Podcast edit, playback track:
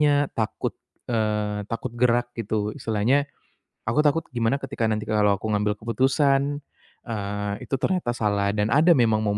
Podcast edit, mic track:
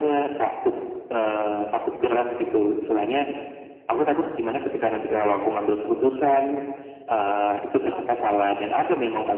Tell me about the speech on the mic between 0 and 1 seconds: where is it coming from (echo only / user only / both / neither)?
echo only